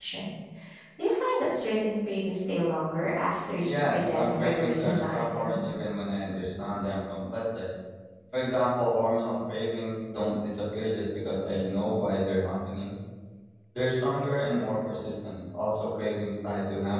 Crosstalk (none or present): present